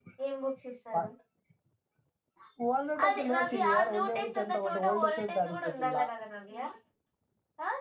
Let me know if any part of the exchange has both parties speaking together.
Yes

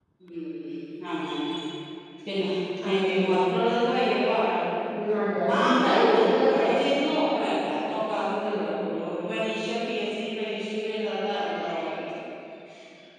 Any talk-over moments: Yes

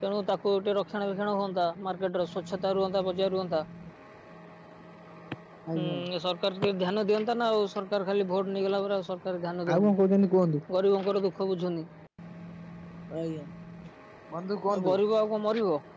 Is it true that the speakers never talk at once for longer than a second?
Yes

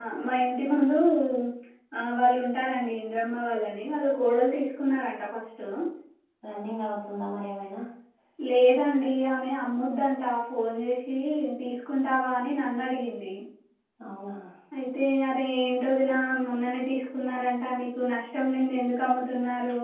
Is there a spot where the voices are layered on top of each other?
No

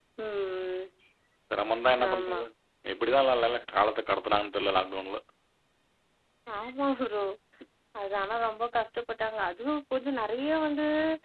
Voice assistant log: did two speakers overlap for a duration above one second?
No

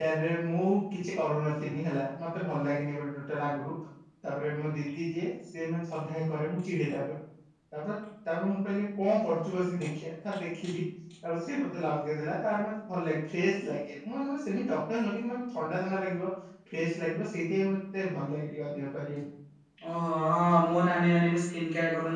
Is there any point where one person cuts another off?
No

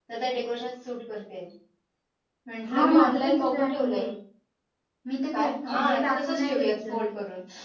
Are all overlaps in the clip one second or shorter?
No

